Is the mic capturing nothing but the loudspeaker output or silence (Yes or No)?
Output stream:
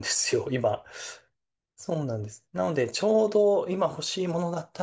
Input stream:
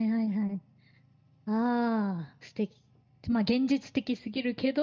No